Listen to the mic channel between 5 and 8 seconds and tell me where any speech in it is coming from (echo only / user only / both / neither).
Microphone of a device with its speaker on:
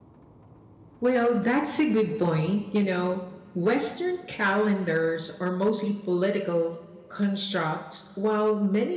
user only